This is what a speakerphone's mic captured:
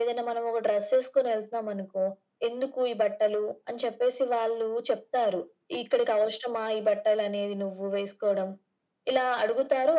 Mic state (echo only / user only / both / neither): echo only